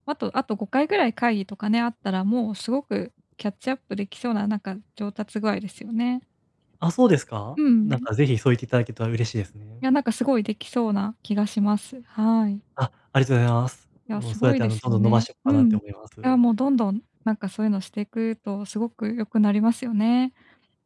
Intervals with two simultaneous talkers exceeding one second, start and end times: 14.1-15.8

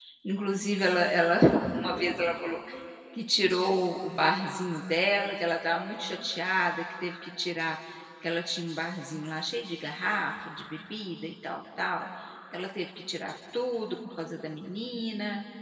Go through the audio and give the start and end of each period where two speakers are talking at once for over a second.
none

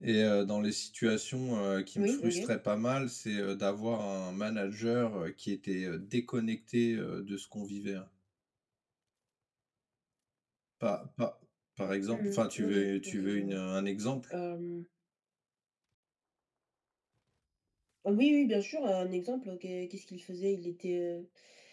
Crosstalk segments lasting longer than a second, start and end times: 12.1-13.6

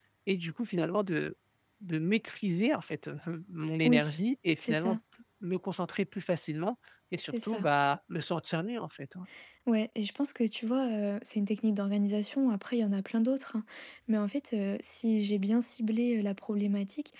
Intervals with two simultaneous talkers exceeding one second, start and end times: none

